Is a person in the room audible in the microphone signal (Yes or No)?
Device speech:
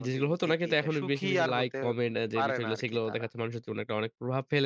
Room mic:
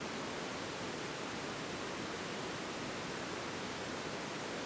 No